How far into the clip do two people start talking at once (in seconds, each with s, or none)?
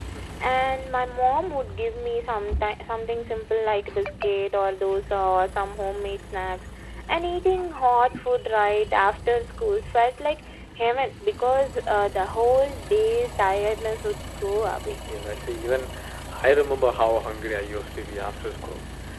none